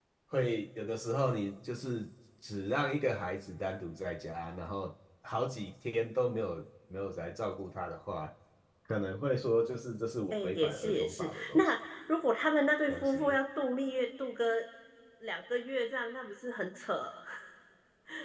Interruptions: present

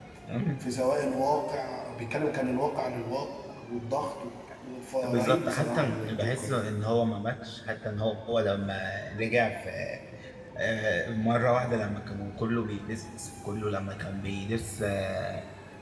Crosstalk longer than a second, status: present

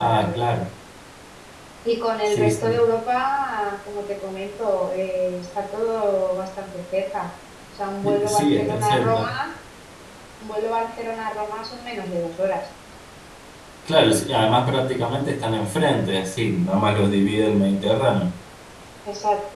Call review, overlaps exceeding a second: present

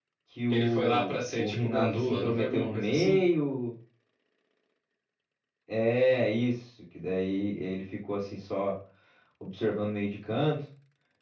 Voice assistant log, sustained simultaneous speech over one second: present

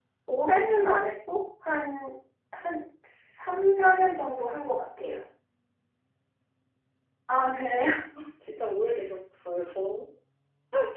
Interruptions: none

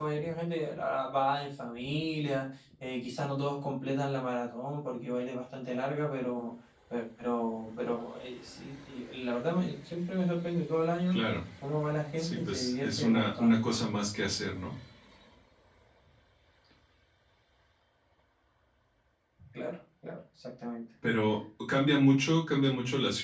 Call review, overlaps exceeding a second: present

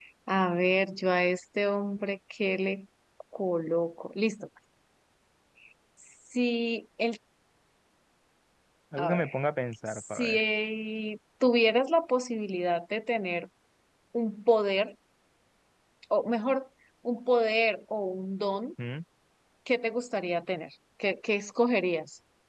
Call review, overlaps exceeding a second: none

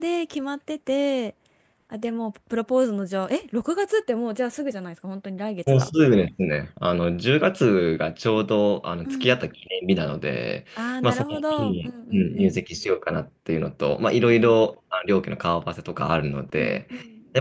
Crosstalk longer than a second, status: present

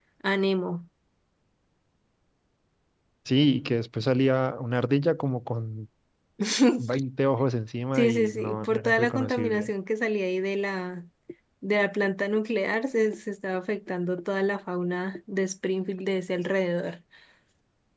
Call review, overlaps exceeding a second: present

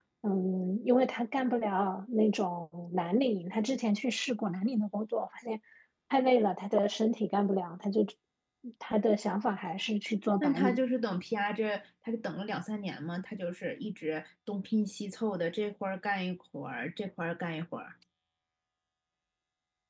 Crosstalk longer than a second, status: none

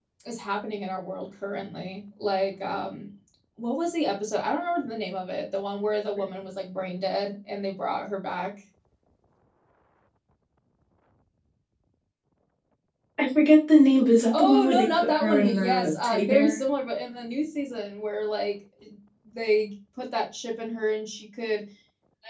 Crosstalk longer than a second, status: present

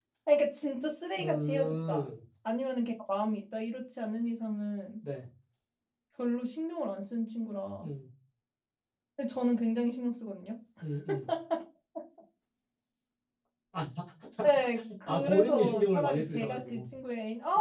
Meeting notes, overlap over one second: present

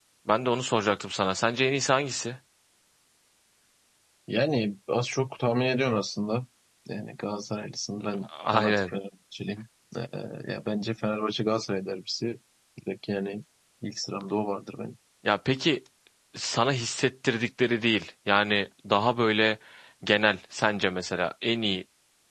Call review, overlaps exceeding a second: none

